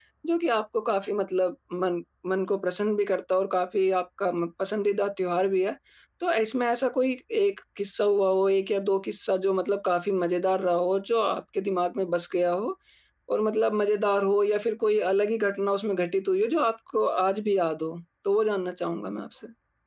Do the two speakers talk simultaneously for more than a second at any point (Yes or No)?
No